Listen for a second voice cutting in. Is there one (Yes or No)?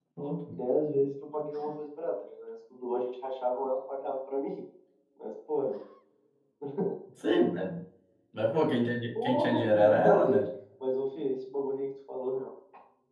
Yes